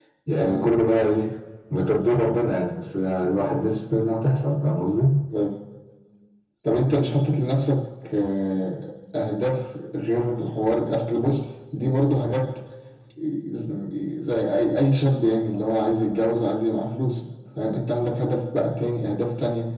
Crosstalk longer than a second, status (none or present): none